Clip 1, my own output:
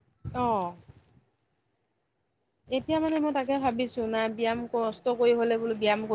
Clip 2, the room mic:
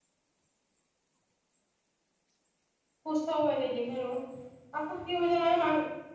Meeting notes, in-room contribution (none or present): present